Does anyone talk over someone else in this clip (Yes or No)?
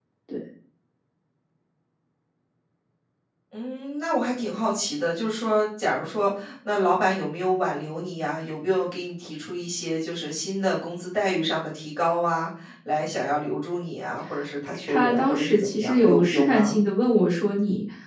Yes